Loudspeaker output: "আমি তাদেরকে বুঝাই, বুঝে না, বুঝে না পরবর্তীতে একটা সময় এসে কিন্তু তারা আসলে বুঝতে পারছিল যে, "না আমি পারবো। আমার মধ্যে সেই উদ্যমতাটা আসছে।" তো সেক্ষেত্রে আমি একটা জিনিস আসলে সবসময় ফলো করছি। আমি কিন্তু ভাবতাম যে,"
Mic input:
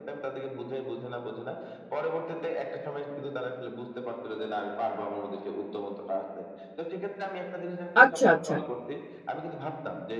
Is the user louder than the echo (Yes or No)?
Yes